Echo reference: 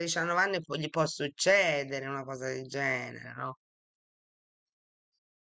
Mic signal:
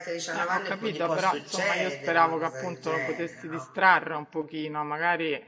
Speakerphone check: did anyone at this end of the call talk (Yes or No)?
Yes